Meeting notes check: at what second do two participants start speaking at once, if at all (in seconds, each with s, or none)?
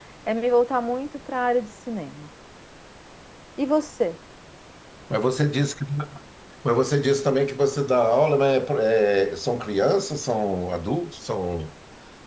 none